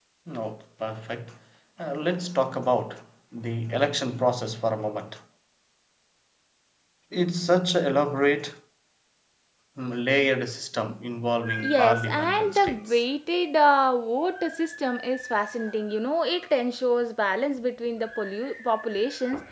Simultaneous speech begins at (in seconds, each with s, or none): 11.4 s